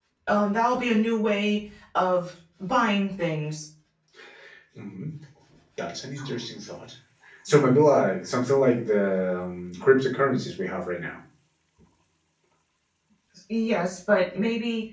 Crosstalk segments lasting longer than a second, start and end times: none

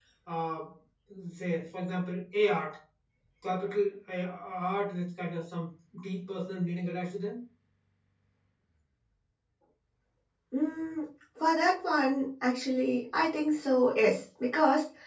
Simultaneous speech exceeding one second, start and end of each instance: none

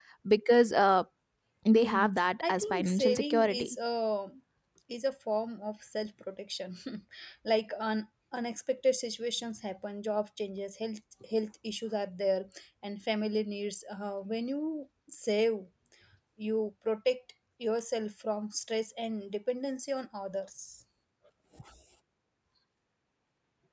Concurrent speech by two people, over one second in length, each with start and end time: 1.7-3.8

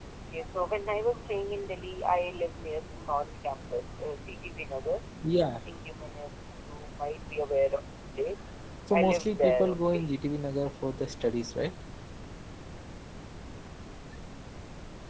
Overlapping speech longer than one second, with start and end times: 8.9-10.1

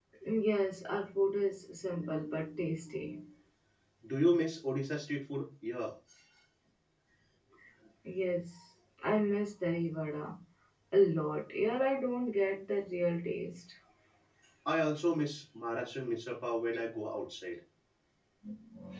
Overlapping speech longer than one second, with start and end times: none

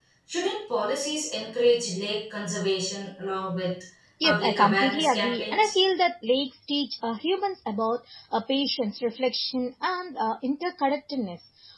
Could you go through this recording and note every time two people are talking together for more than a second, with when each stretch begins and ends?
4.2-5.7

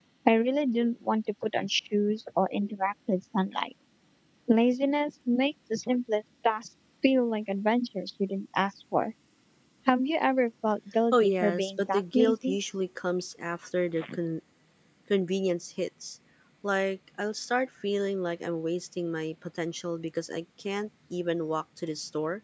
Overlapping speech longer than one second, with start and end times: 11.1-12.6

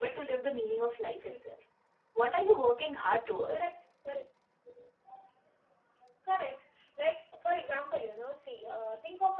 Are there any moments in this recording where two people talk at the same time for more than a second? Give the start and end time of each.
none

